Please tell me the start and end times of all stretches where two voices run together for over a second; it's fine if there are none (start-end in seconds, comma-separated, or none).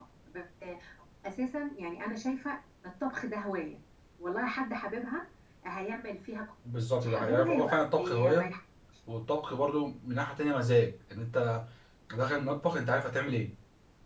7.0-8.5